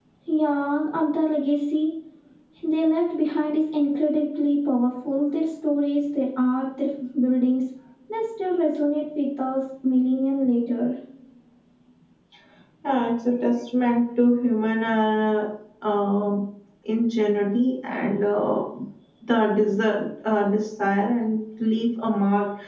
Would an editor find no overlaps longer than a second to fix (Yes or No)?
Yes